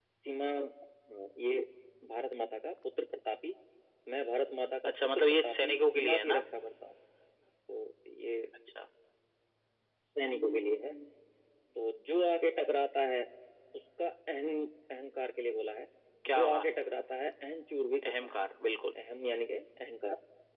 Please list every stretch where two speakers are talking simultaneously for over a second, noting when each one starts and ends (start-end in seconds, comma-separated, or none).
4.8-6.4